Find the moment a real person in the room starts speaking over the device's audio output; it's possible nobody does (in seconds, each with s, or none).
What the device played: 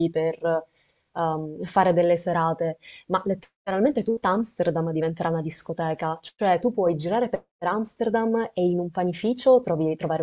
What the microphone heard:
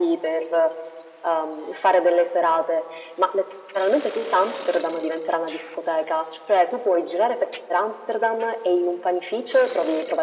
none